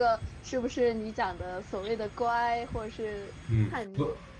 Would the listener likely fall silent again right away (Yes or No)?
No